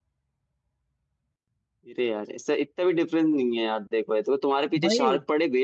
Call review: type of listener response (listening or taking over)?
listening